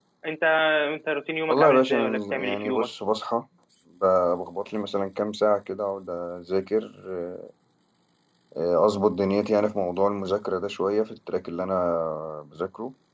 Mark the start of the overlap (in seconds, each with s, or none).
1.5 s